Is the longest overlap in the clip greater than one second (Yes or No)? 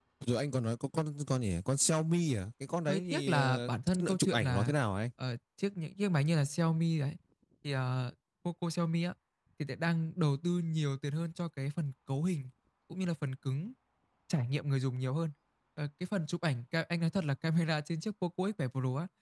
Yes